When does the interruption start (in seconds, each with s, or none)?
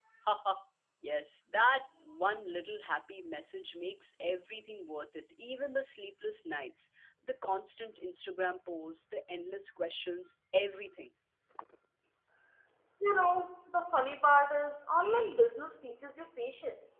none